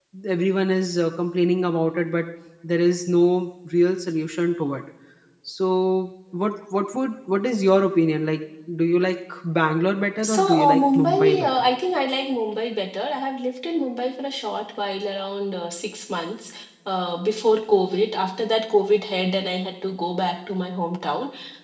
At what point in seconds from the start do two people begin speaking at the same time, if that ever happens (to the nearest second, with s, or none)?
10 s